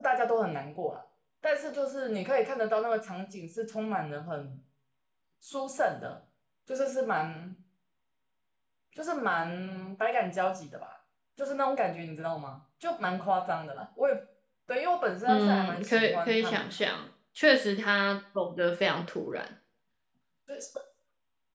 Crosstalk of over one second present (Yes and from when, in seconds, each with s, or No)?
Yes, from 15.3 s